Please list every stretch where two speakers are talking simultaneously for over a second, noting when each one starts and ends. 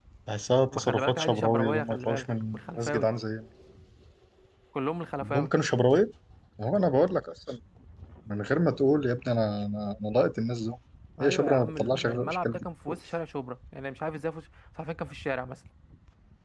0.7-3.1, 11.2-12.7

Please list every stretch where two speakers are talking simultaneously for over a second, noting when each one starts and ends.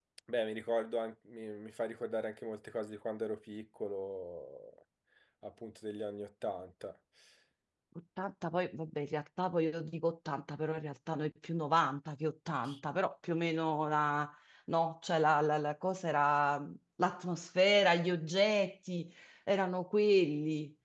none

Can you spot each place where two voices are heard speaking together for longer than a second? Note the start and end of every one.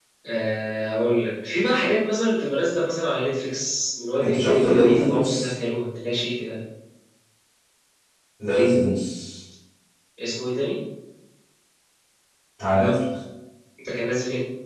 4.2-5.5

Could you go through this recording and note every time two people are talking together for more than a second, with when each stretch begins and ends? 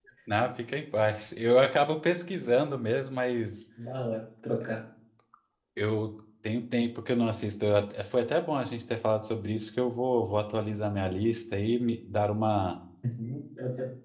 none

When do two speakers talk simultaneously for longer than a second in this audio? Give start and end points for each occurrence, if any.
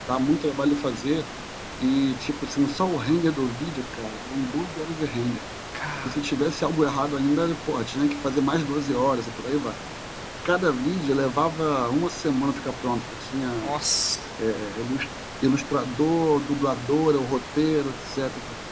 none

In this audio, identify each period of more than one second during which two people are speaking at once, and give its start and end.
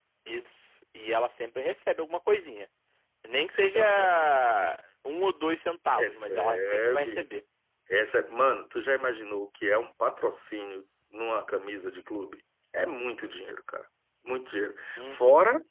6.0-7.2

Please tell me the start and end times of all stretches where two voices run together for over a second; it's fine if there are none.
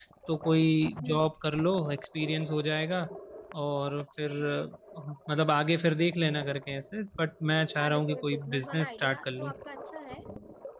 7.8-9.5

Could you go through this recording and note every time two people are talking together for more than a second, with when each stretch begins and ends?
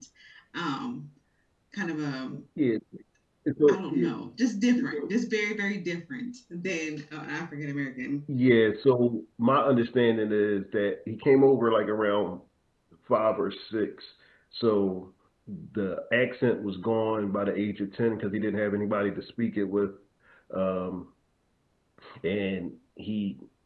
none

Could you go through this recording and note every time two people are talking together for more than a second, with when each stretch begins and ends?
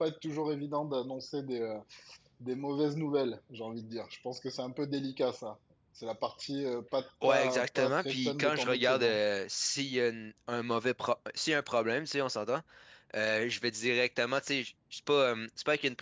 7.3-9.2

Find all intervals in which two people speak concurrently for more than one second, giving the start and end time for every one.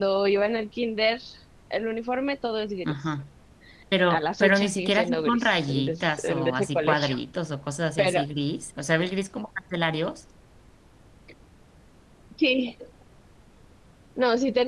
4.1-7.1

